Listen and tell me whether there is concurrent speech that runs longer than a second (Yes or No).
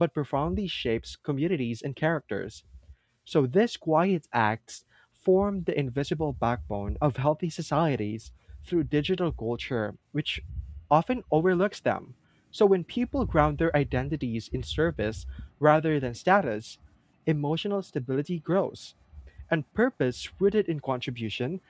No